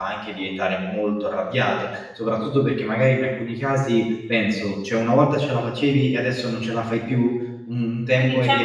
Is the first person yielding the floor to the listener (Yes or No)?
Yes